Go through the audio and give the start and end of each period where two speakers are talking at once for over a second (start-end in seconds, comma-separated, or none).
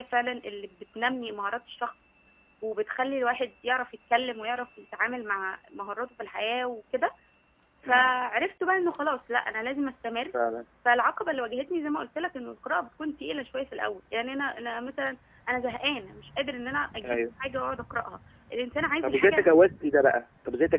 none